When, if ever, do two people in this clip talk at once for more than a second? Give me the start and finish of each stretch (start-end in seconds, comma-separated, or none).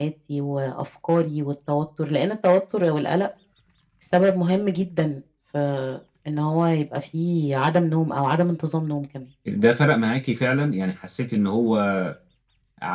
none